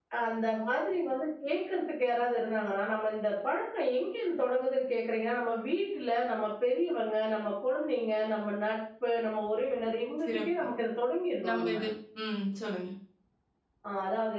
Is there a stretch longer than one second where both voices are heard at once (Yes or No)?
No